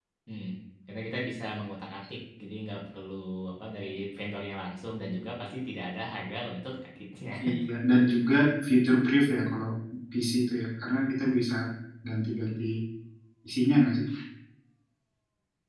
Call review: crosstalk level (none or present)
none